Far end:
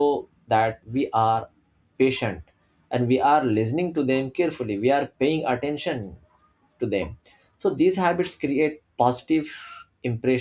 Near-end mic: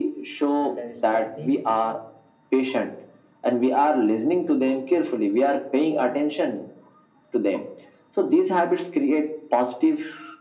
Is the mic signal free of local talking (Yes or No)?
No